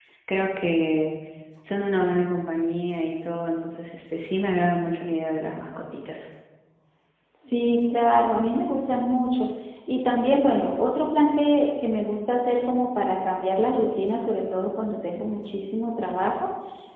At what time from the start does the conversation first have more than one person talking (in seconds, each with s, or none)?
none